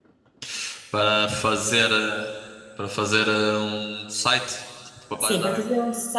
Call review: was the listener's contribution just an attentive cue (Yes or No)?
No